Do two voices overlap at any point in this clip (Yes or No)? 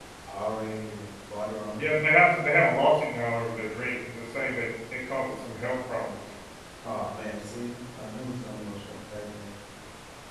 No